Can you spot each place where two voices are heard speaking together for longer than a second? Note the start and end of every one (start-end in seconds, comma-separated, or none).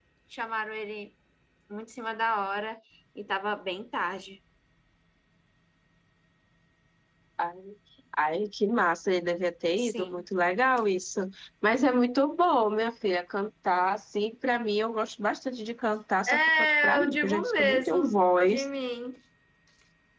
16.3-18.6